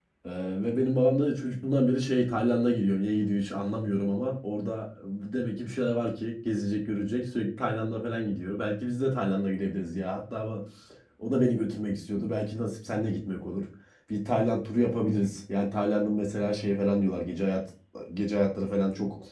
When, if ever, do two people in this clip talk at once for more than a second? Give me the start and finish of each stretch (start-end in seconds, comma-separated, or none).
none